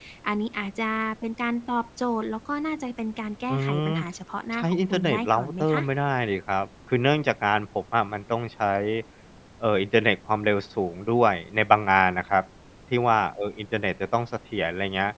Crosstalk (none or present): present